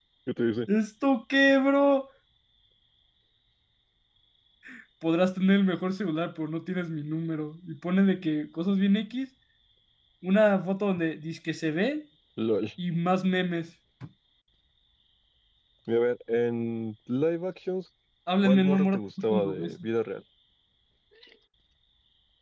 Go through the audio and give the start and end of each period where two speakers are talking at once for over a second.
18.4-19.7

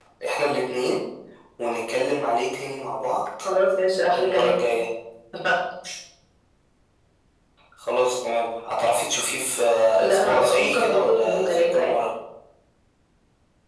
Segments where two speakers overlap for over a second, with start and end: 10.0-11.9

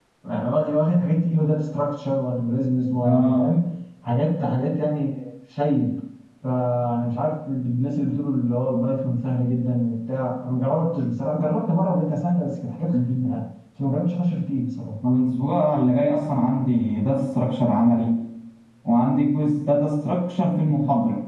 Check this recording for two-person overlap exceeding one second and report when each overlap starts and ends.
none

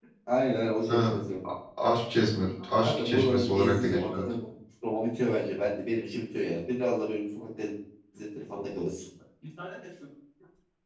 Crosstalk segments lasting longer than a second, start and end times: 2.8-4.2

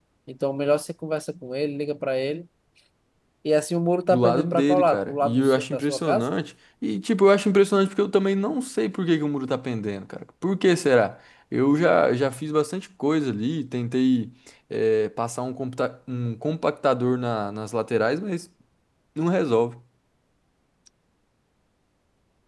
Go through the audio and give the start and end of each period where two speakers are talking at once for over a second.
4.1-6.2

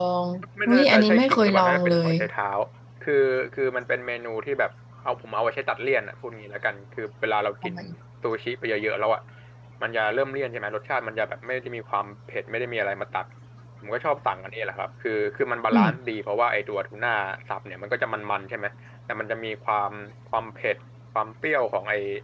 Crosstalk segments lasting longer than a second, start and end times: 0.7-2.1

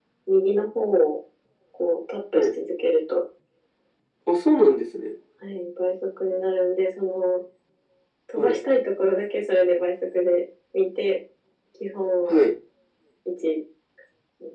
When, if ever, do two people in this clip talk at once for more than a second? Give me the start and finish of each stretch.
none

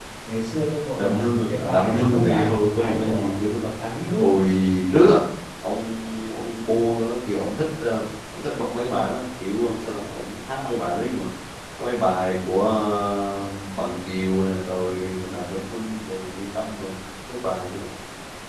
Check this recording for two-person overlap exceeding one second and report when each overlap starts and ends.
1.0-3.4

